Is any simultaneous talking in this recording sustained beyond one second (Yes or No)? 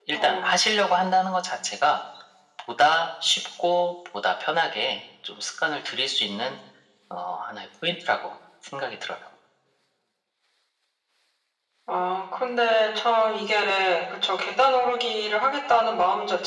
No